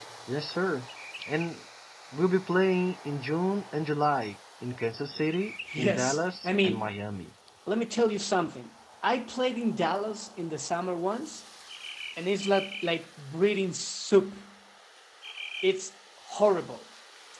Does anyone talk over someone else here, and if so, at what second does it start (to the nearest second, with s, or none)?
6 s